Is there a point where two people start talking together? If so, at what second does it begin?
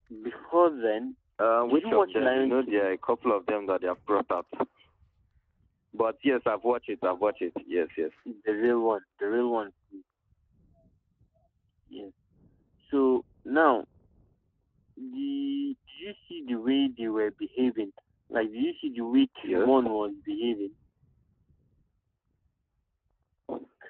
1.7 s

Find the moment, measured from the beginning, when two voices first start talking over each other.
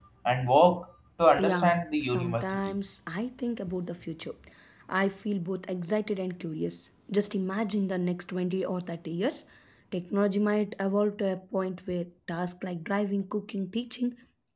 1.4 s

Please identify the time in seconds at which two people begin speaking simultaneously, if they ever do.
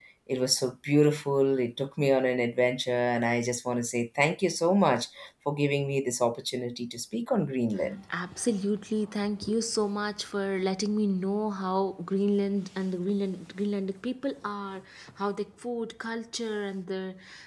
none

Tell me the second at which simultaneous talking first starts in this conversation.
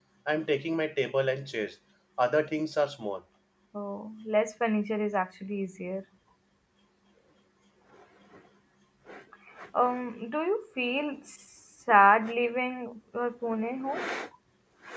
none

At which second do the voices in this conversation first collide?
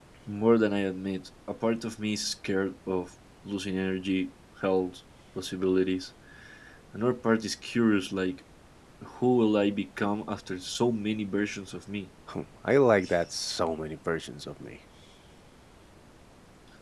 none

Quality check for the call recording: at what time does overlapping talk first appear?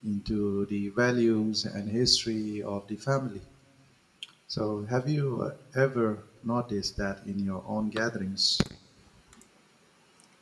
none

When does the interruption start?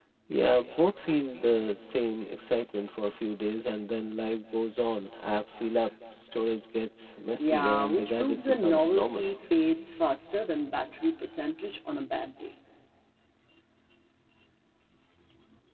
7.4 s

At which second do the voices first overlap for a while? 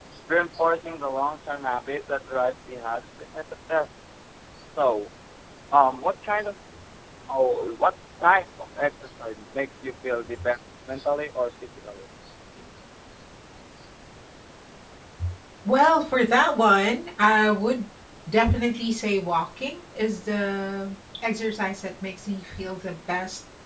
none

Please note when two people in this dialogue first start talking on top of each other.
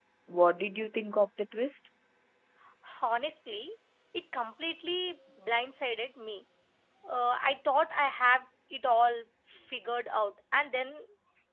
none

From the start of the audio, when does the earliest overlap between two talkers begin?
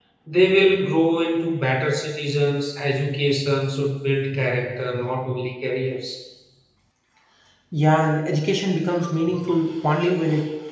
none

